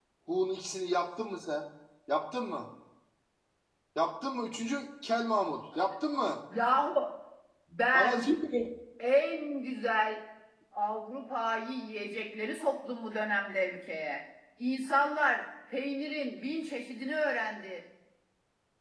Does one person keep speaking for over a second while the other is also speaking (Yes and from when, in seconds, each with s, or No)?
No